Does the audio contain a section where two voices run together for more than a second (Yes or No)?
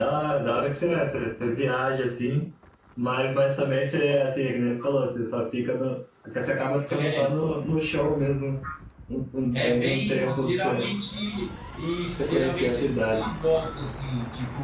Yes